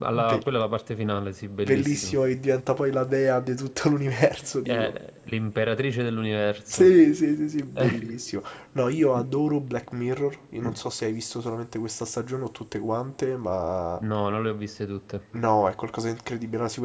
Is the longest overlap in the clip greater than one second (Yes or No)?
No